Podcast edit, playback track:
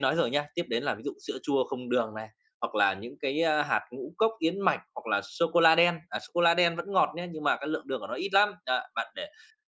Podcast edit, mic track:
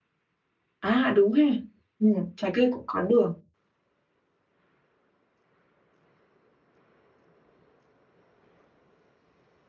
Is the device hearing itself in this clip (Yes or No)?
No